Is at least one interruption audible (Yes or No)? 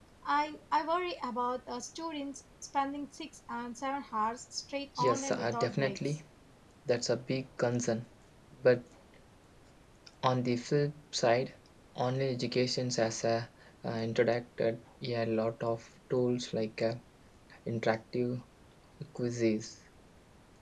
Yes